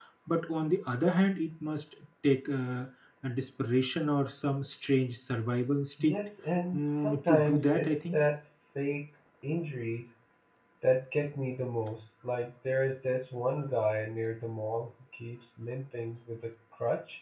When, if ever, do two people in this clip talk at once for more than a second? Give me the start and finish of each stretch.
6.7-8.2

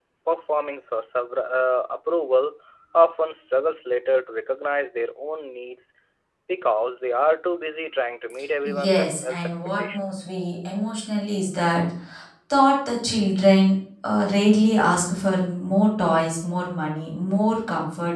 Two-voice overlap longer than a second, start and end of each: 8.6-10.0

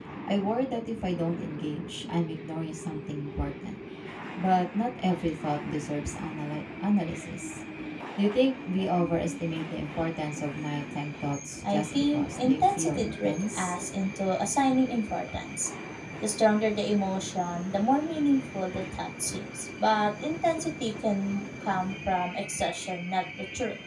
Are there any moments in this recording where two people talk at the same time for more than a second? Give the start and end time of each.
11.7-13.8

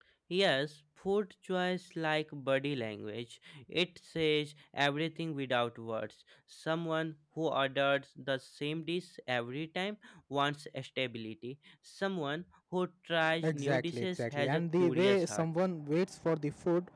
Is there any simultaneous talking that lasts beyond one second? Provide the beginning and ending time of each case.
13.4-15.4

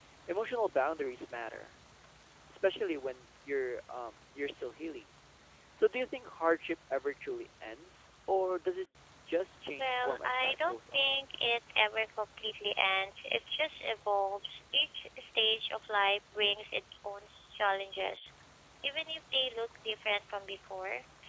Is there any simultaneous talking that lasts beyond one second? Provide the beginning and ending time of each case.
9.8-11.1

